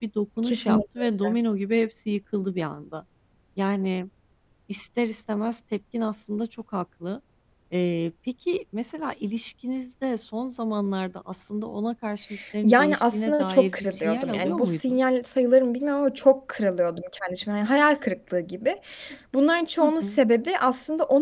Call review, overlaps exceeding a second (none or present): present